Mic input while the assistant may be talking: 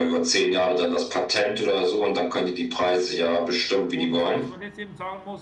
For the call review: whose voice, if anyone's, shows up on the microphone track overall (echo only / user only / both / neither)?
both